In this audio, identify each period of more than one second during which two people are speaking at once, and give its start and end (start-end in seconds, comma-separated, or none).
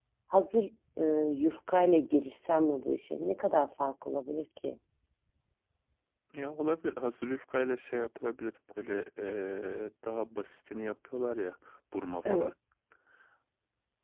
none